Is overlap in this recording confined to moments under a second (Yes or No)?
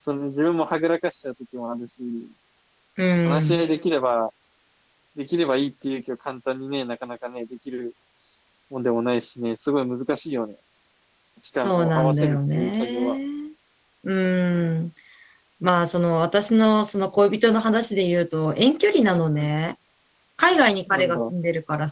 No